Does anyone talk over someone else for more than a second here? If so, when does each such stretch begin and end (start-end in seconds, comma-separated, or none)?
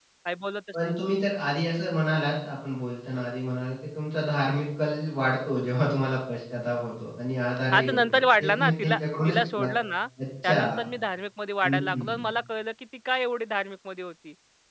7.7-9.7